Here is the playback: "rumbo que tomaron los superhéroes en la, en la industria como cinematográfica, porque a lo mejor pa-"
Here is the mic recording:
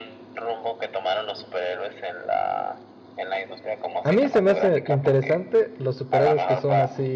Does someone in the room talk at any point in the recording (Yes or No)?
Yes